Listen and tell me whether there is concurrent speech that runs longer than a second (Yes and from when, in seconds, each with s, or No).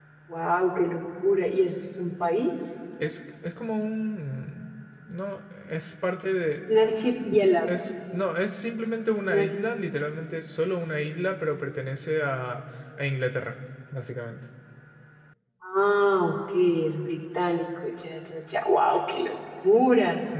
No